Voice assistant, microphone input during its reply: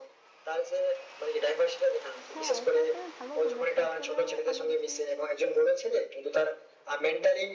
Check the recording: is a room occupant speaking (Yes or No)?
Yes